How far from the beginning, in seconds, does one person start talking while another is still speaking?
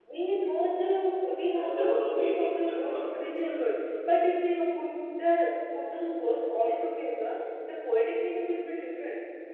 1.6 s

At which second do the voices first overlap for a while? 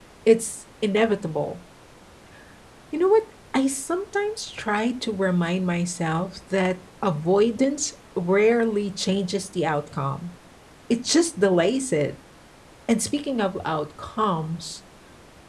none

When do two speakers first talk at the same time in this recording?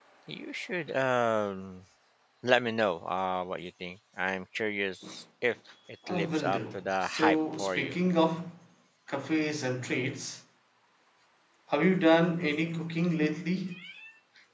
6.1 s

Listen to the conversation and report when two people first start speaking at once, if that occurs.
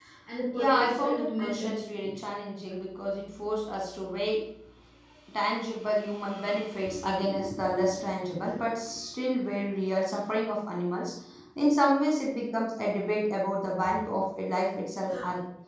0.5 s

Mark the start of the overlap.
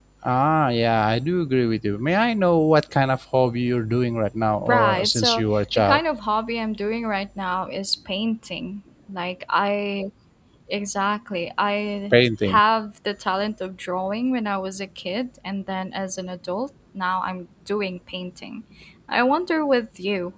4.7 s

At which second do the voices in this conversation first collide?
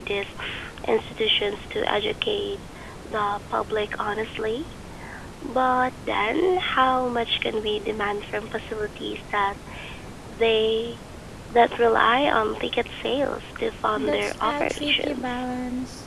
14.0 s

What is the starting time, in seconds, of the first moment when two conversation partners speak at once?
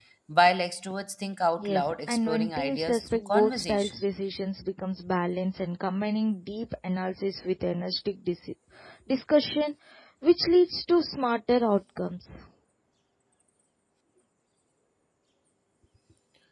1.6 s

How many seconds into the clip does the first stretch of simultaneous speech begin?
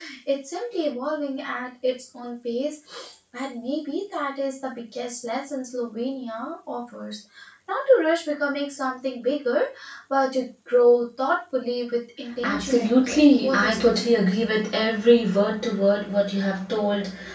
12.4 s

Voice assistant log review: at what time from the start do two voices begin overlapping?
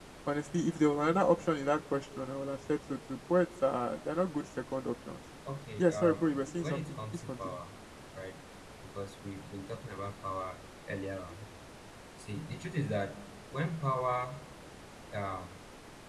5.8 s

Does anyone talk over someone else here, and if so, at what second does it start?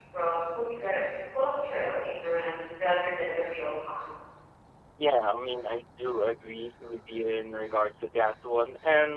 none

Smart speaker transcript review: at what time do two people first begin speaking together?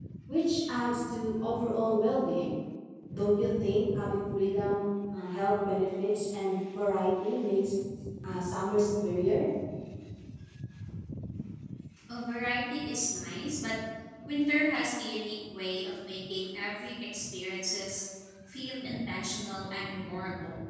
none

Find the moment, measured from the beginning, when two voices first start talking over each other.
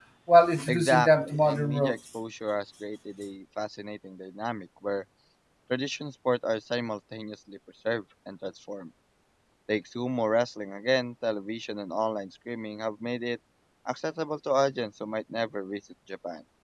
0.7 s

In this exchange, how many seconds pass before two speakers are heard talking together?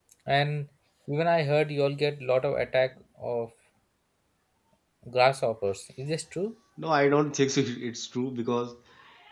none

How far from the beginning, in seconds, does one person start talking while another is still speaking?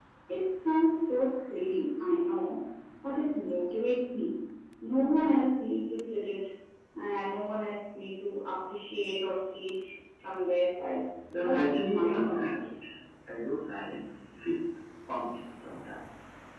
11.3 s

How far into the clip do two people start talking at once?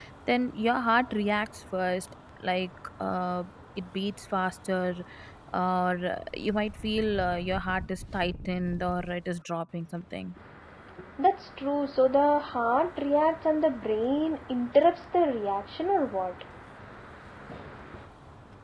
none

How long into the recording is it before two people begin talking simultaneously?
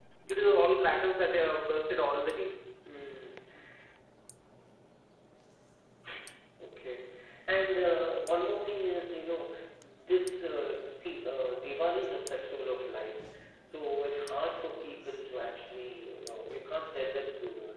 none

